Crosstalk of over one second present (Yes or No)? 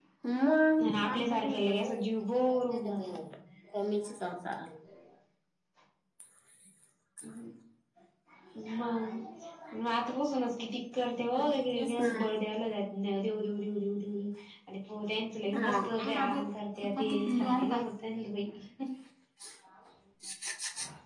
Yes